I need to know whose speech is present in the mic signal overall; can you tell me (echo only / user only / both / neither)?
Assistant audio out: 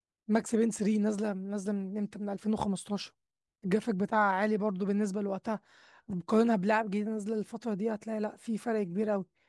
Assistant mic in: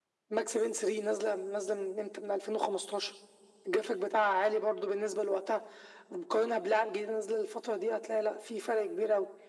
echo only